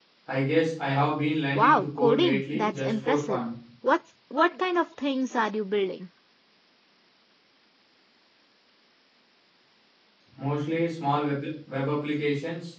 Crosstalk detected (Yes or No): Yes